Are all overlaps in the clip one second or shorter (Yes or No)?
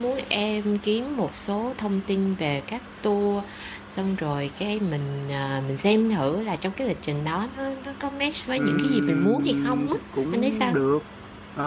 No